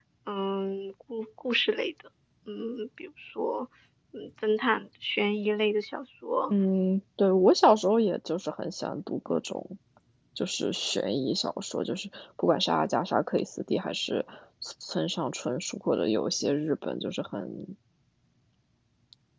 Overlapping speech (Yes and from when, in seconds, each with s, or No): No